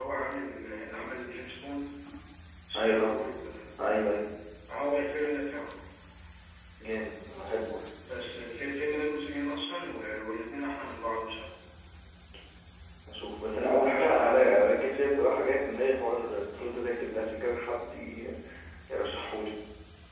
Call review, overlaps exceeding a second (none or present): none